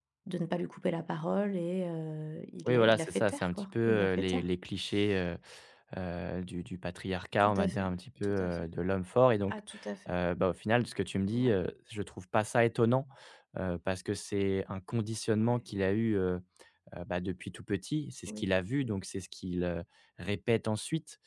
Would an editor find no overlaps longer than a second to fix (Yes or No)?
No